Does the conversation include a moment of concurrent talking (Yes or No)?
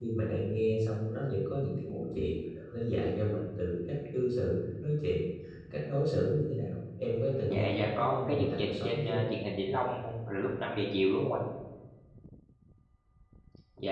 Yes